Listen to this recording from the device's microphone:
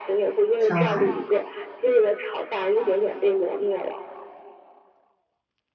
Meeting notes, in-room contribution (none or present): present